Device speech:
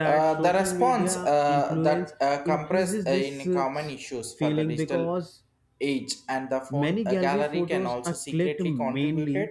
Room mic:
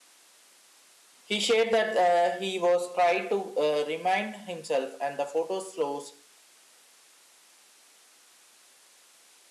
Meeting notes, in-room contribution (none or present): present